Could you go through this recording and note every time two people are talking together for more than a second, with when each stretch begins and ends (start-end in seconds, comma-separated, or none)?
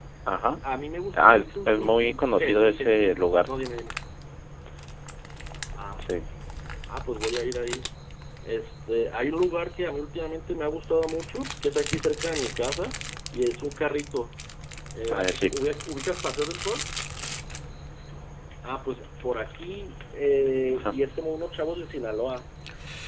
1.1-3.0